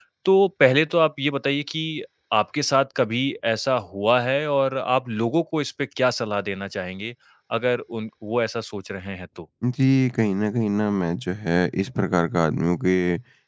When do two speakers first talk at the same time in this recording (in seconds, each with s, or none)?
none